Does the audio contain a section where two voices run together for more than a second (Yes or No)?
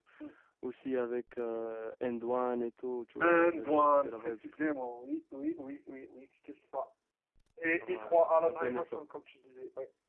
Yes